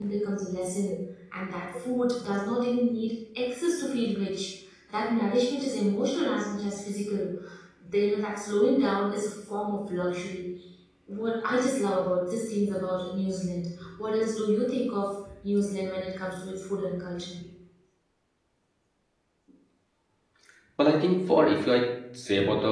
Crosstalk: none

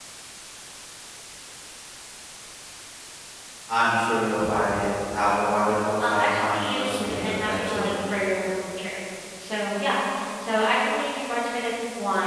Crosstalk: present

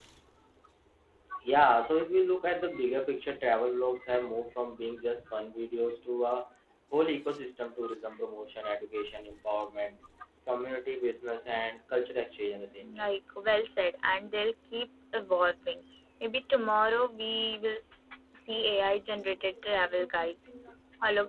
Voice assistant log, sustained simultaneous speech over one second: none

